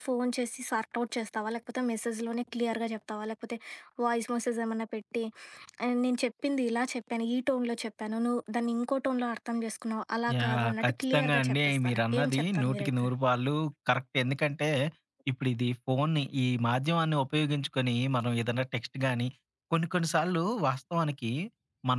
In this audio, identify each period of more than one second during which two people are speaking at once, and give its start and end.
10.4-13.1

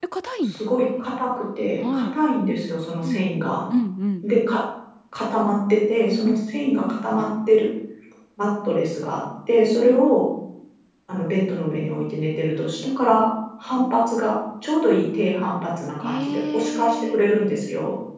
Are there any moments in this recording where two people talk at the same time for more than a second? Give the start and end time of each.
16.0-17.2

